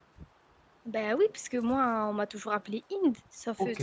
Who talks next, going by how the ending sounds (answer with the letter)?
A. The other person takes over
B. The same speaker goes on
A